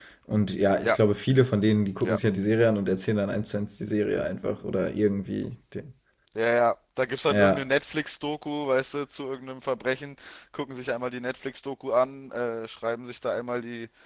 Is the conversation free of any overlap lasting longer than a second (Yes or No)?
Yes